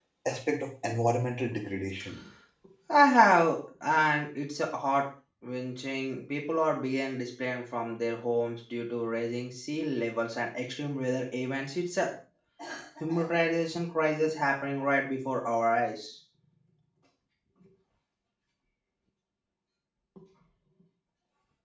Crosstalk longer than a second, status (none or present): none